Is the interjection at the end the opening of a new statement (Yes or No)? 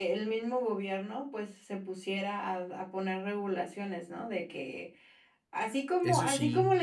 No